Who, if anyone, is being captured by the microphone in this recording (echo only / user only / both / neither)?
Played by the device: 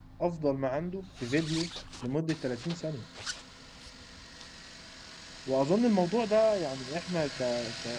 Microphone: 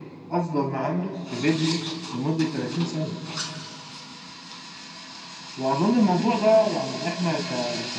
echo only